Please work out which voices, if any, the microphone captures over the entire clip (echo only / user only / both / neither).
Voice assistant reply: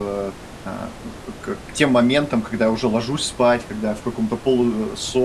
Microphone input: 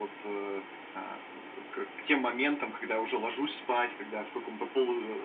echo only